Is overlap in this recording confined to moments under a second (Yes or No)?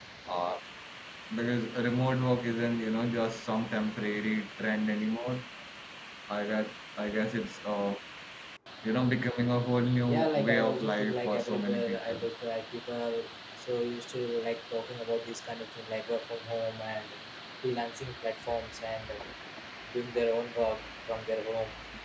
No